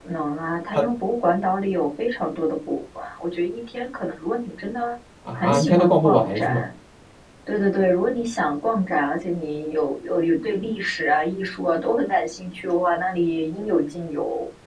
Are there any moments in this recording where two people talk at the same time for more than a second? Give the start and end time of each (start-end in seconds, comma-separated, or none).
5.3-6.6